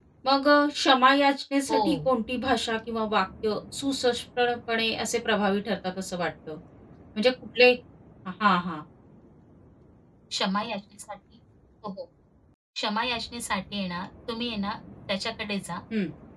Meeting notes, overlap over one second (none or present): none